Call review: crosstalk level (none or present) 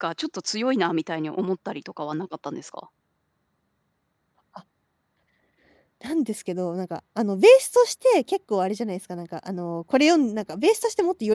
none